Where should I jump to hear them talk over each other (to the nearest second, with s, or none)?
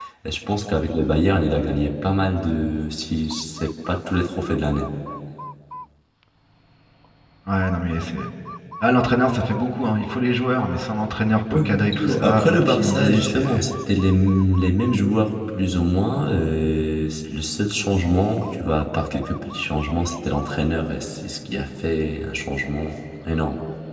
12 s